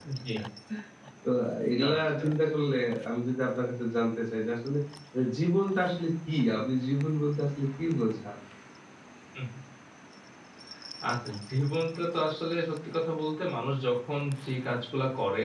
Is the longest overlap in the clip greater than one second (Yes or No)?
No